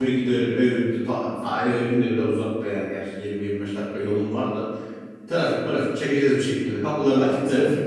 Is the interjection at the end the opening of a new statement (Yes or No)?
Yes